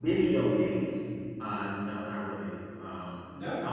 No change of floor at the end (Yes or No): Yes